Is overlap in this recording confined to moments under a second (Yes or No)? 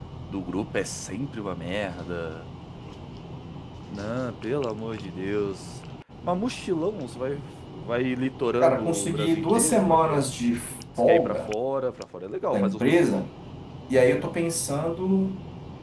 No